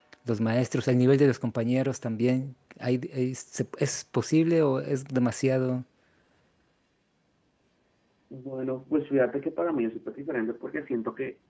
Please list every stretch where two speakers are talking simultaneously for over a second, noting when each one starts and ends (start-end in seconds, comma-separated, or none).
none